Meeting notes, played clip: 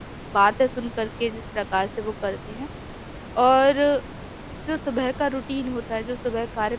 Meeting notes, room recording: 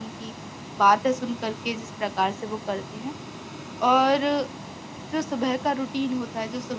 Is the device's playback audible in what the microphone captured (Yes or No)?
Yes